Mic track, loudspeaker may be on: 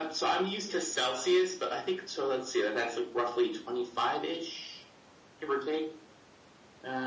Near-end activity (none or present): none